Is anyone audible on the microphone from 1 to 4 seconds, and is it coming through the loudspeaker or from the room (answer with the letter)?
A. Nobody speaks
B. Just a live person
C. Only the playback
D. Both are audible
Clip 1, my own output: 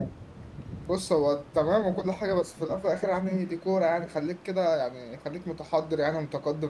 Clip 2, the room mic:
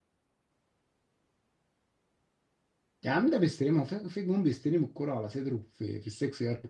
B